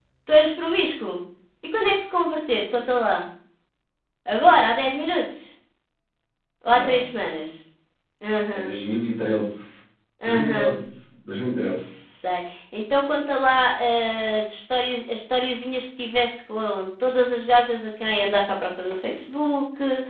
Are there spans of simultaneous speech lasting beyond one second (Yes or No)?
No